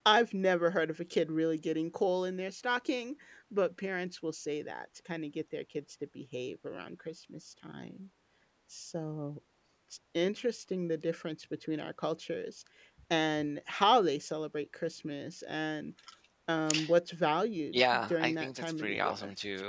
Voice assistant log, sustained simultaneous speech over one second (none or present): present